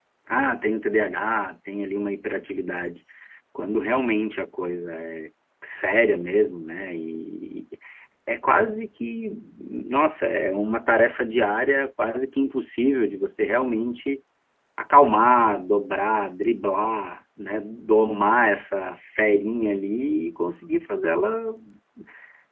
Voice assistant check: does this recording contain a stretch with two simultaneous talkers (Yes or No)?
No